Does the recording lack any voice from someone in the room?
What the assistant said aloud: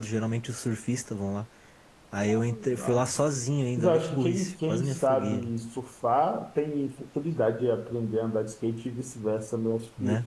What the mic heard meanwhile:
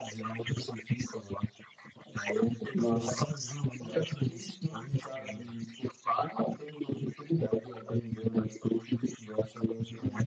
No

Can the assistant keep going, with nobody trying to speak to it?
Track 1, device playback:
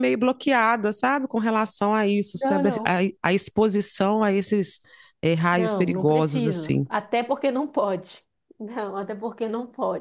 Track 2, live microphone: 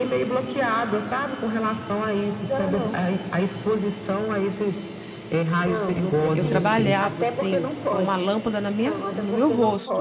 No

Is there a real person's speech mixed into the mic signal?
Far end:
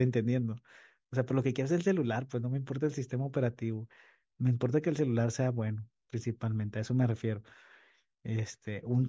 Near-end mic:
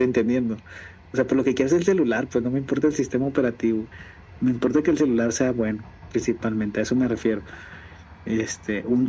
No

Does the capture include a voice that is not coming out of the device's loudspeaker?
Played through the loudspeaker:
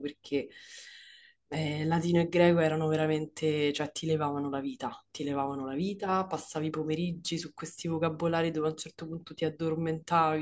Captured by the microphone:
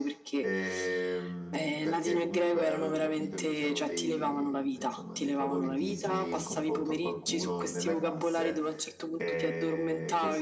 Yes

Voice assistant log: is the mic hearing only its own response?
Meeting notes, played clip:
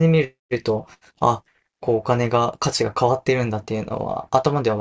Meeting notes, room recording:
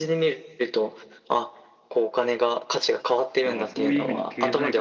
No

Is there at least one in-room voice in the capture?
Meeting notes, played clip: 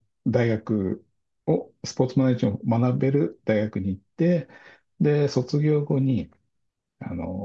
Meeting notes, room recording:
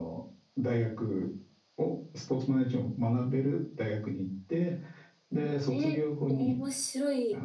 Yes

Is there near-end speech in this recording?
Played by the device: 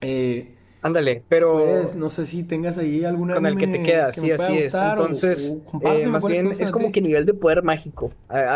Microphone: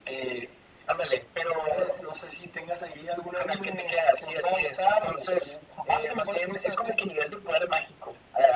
No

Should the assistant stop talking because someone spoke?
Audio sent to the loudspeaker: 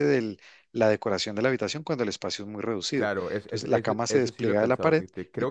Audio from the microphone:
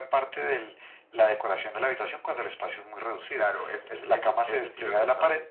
No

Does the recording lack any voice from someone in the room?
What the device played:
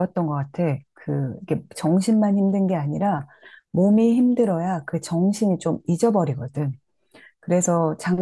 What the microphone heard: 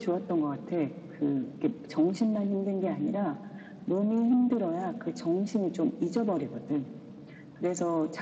Yes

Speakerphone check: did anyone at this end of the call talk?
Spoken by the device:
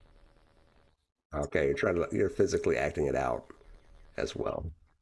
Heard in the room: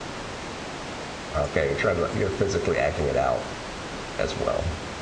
No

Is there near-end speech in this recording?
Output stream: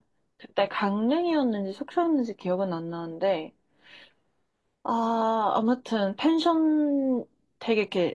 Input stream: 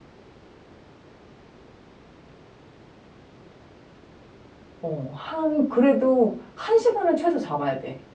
Yes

